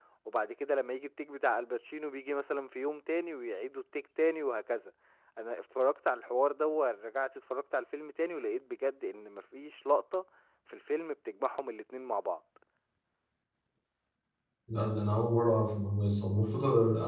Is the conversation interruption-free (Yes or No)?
Yes